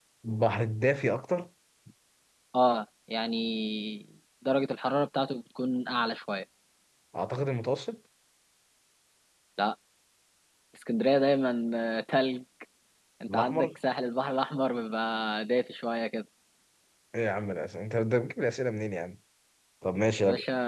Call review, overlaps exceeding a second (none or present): none